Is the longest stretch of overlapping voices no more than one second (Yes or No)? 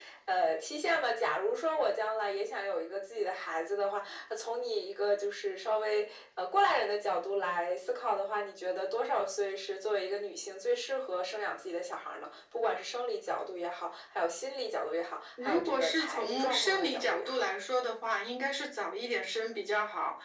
No